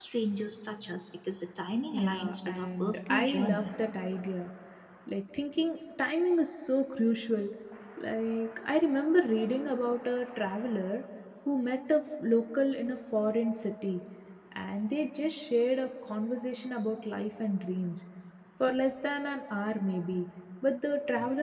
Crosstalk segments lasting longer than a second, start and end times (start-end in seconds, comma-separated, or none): 1.9-3.6